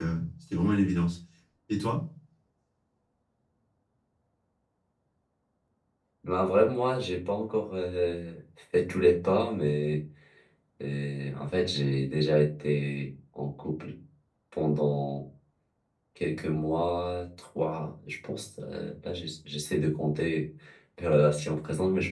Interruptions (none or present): none